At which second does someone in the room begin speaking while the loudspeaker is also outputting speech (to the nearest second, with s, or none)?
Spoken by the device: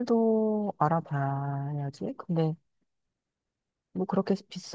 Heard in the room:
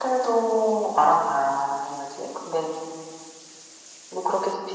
none